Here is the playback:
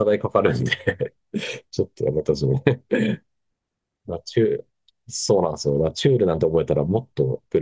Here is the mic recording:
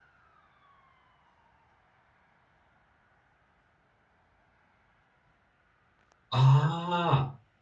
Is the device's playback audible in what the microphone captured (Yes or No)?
No